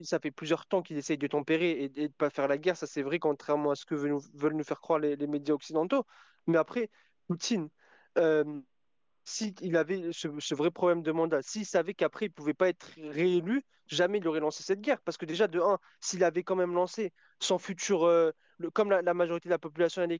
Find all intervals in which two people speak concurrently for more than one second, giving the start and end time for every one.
none

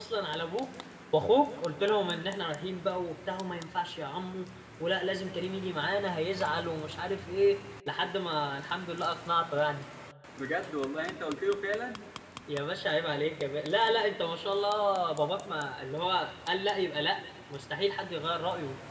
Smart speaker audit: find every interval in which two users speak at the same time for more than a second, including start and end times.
none

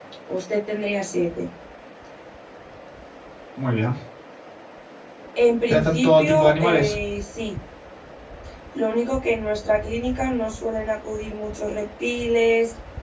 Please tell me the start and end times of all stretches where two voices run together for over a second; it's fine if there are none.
5.7-7.0

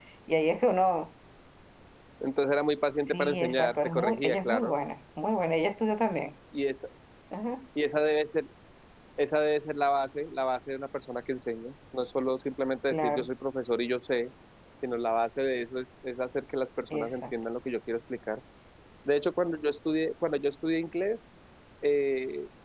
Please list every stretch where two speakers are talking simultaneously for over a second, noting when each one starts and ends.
3.1-4.7

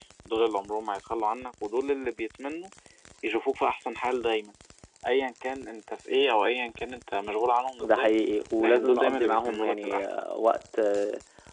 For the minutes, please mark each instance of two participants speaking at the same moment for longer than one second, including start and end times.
8.6-10.2

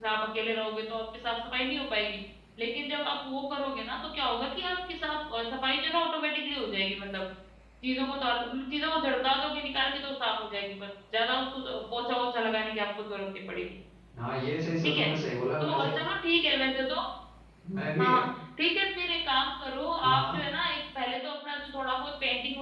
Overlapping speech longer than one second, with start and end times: none

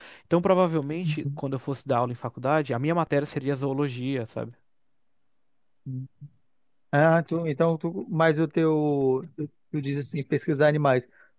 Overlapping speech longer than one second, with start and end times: none

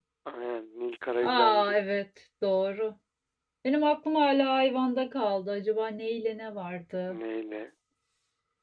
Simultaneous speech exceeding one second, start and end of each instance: none

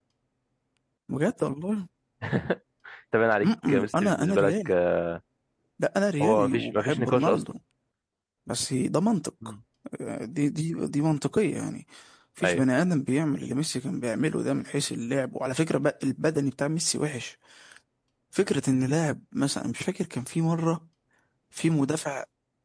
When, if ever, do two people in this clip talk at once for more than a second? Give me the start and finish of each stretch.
3.4-4.7, 6.2-7.4

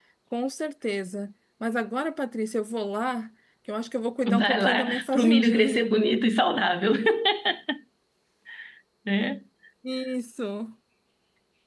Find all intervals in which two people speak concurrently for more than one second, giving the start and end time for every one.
4.3-5.8

